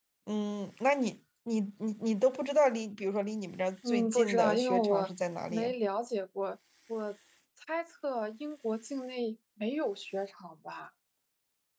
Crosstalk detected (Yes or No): Yes